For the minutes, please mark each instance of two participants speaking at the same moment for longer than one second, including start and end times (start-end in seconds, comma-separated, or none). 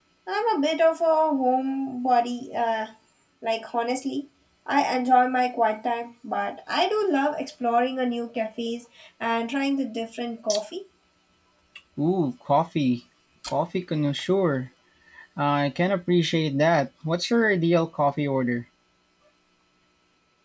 none